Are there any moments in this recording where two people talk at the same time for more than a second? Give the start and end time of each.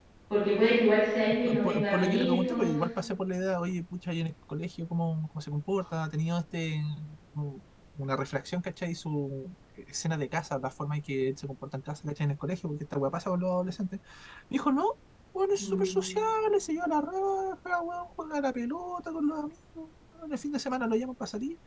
1.4-2.7

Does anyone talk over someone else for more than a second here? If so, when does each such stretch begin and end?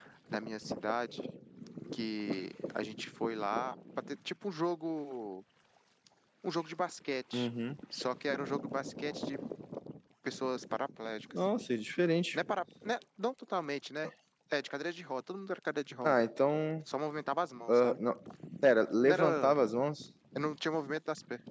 none

